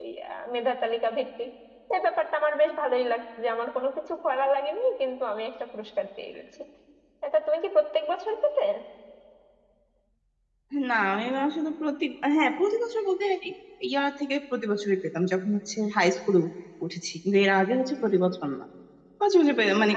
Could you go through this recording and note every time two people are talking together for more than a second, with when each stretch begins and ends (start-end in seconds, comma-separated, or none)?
none